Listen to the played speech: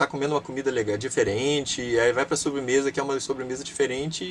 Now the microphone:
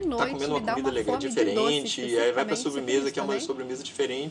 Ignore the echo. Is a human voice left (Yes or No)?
Yes